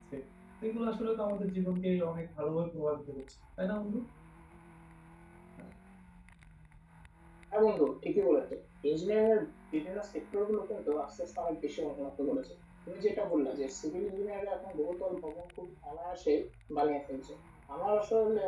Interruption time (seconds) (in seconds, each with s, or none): none